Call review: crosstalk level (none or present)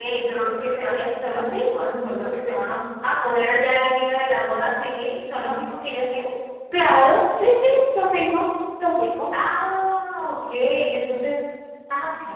none